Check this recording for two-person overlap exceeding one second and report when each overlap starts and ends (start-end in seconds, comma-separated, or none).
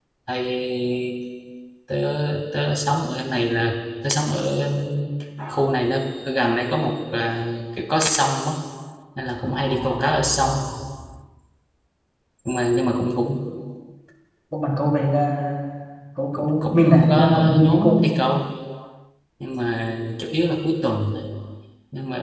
16.4-18.1